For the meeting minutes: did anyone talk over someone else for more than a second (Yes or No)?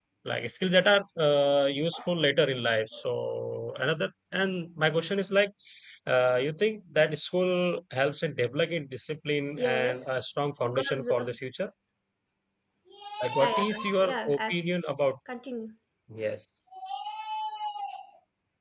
Yes